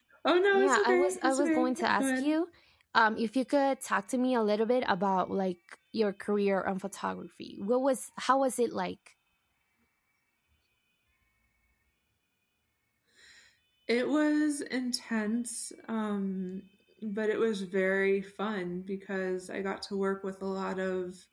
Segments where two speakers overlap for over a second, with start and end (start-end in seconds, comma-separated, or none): 0.5-2.4